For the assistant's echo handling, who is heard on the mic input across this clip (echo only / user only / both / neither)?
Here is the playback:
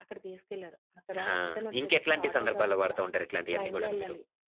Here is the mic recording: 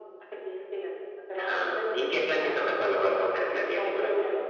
echo only